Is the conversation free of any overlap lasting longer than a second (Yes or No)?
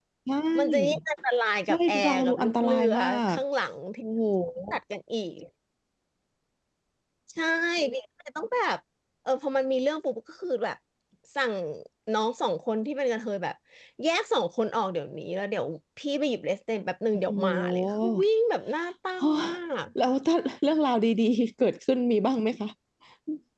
No